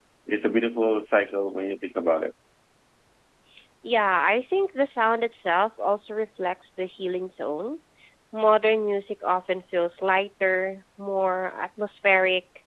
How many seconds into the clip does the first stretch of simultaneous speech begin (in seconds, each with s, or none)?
none